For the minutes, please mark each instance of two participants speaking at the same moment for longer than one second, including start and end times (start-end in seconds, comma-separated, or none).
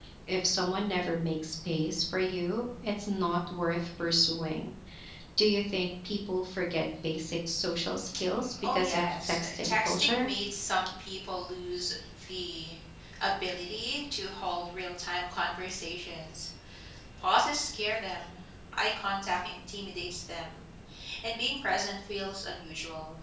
8.6-10.3